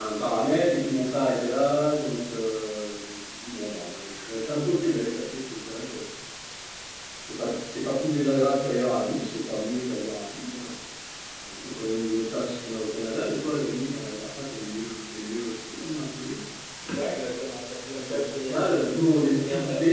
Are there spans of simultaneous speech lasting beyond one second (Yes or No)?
Yes